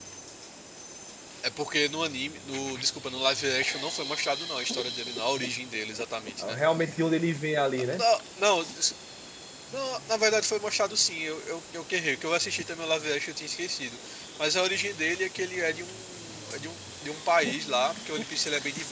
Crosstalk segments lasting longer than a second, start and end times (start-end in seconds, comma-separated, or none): none